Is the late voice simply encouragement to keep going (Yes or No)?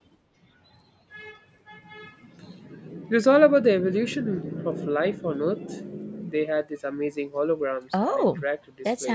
No